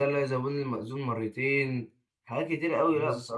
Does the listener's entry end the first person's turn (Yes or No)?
No